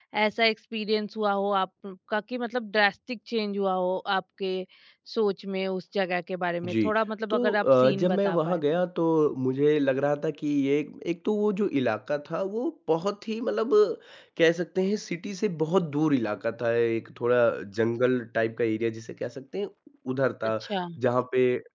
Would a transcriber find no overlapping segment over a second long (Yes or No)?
No